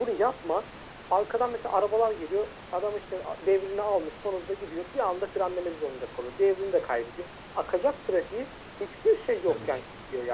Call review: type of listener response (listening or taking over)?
listening